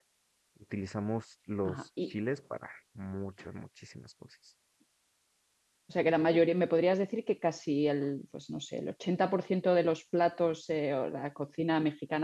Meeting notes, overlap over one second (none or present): none